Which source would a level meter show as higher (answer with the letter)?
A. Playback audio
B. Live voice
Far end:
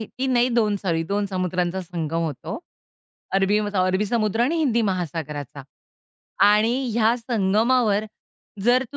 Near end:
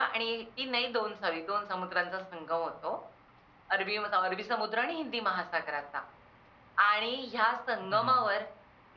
A